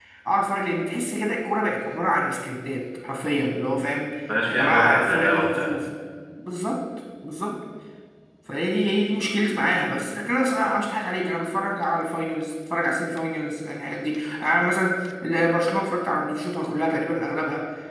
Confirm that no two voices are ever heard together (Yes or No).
No